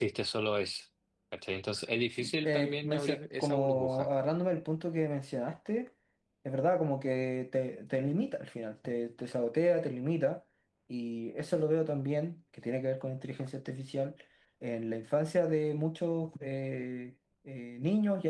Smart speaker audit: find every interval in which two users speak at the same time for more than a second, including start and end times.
2.4-4.1

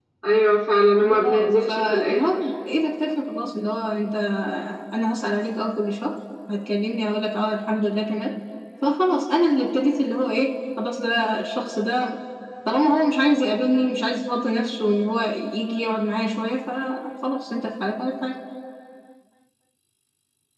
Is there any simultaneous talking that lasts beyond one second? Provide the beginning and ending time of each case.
1.0-2.5

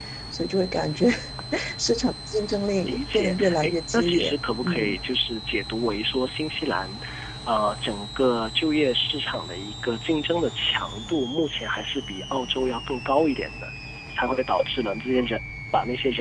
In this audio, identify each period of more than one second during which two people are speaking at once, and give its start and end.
2.8-5.0

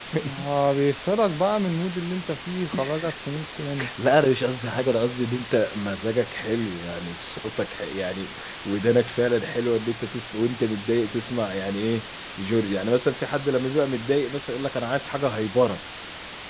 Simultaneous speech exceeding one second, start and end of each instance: none

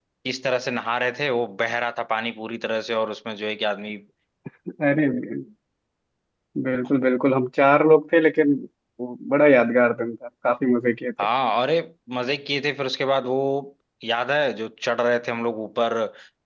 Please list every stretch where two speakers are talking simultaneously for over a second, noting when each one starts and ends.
none

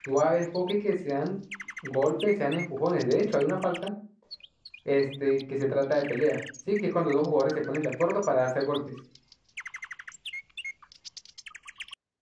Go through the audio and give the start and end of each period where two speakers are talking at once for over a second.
none

